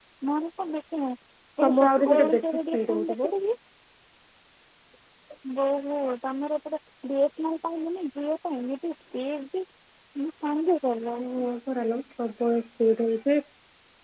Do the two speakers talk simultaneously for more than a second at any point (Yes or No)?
Yes